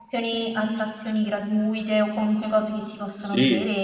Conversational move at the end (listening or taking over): taking over